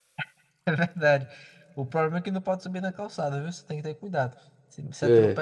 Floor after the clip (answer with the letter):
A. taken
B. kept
B